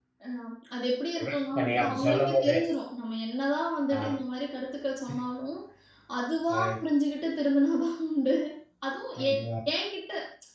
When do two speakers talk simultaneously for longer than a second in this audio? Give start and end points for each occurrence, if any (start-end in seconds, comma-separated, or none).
1.2-2.5